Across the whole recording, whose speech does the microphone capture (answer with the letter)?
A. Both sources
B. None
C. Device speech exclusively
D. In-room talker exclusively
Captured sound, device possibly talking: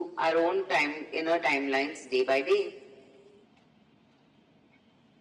C